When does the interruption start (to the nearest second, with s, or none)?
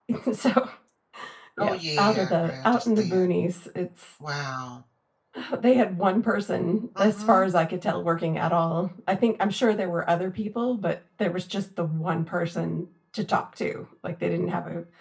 2 s